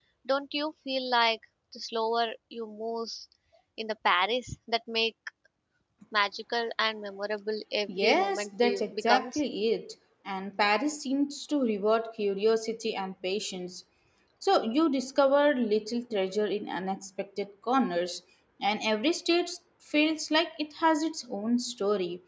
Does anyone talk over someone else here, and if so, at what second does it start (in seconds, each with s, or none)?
7.9 s